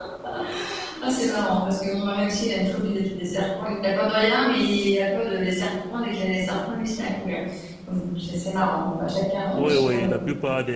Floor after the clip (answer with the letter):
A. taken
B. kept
A